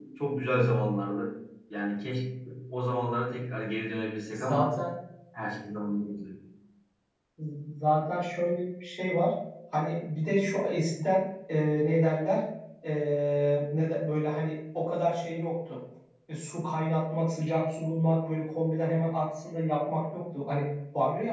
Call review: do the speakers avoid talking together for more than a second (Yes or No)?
Yes